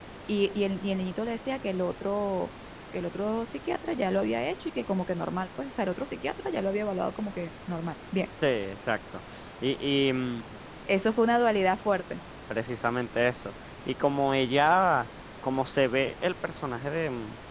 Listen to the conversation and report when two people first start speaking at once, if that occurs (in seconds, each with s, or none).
none